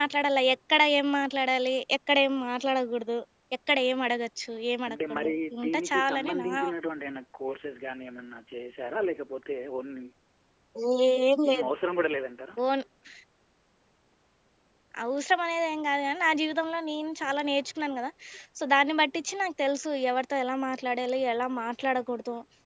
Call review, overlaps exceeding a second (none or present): present